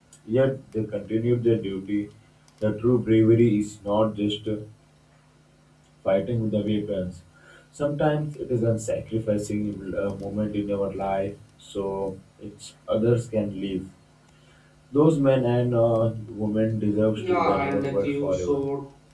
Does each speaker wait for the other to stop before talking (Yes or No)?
No